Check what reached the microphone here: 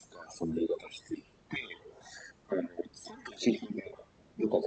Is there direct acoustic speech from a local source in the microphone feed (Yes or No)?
No